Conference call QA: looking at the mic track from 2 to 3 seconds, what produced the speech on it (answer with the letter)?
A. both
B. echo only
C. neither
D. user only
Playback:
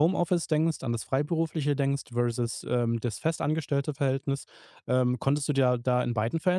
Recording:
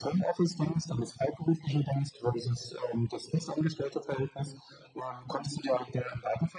B